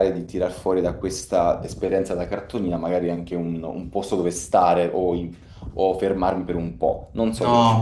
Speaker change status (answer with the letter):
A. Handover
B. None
A